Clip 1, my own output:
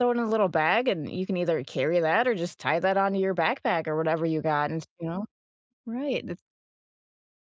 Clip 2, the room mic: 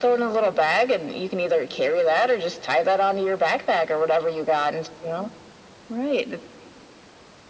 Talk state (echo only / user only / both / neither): echo only